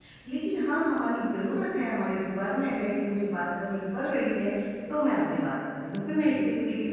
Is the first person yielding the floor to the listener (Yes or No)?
Yes